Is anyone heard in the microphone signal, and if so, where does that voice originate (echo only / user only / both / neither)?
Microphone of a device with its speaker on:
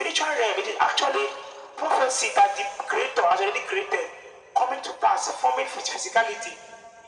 echo only